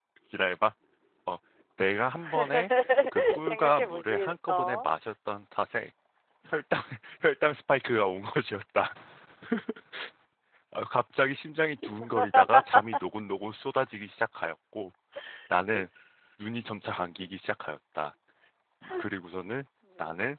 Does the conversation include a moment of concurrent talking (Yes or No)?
Yes